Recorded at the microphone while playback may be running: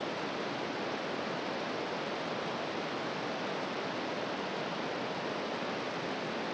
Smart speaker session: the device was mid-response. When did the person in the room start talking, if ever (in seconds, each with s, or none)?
none